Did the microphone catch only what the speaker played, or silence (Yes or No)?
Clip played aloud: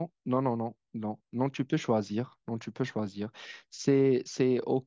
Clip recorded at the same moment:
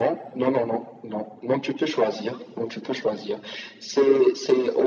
Yes